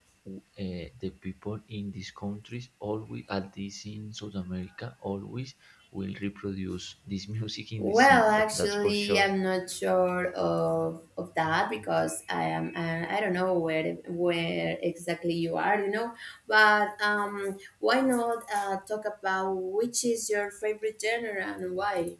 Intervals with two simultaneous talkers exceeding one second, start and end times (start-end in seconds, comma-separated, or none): 7.8-9.3